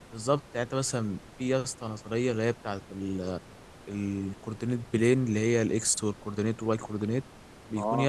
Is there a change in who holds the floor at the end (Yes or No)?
No